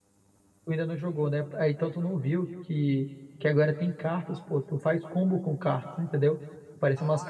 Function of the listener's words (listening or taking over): listening